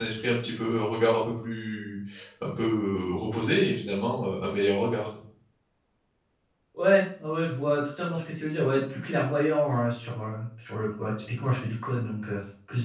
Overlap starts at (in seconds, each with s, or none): none